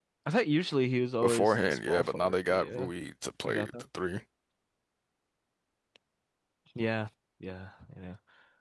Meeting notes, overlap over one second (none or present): present